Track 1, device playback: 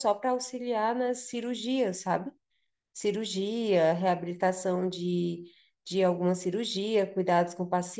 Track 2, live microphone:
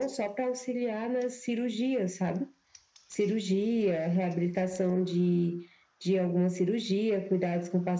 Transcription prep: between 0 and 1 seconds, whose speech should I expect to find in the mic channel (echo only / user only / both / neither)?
echo only